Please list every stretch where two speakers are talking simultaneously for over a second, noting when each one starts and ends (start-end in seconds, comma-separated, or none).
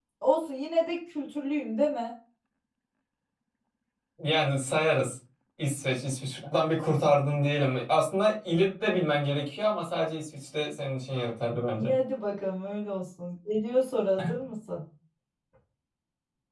none